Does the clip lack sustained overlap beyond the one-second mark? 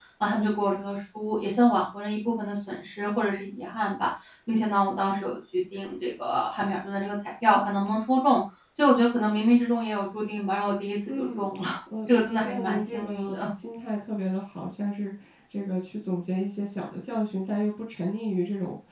No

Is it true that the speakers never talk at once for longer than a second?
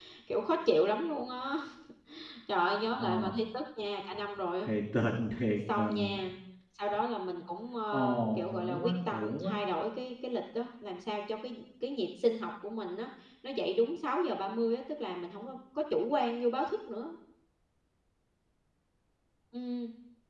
No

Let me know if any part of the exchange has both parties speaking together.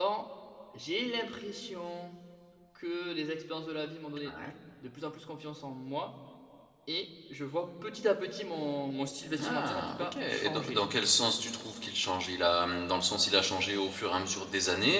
Yes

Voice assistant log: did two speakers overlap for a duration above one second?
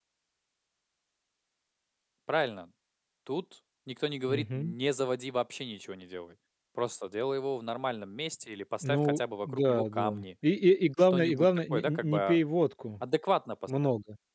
Yes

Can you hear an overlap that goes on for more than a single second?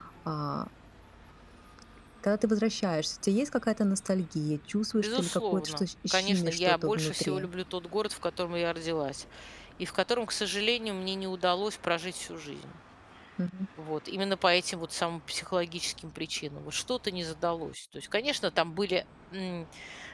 Yes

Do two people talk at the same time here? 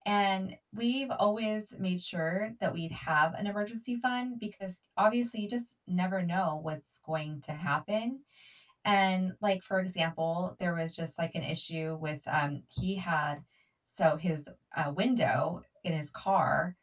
No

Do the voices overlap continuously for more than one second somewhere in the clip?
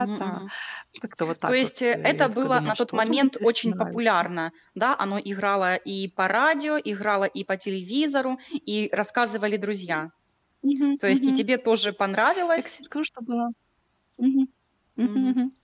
Yes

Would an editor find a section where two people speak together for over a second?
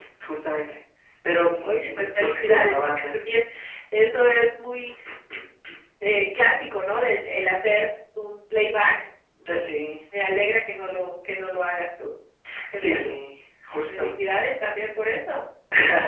Yes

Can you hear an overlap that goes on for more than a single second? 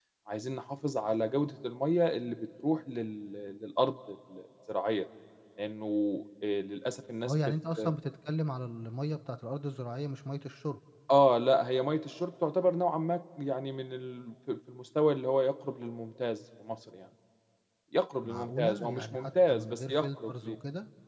Yes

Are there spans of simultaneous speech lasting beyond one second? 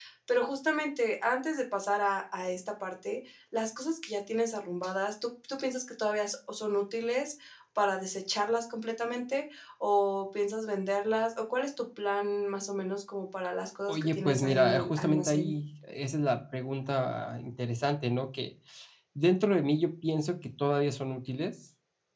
Yes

